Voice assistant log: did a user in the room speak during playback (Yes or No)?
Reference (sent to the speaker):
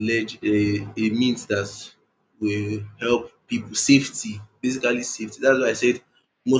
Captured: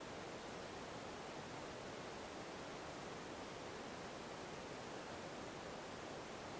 No